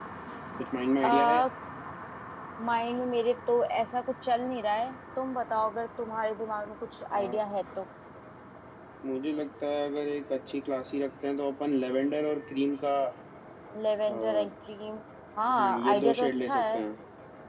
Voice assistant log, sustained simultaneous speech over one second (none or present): present